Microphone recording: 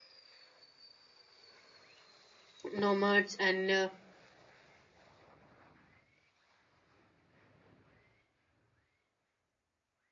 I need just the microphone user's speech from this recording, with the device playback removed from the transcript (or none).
nomads and uh,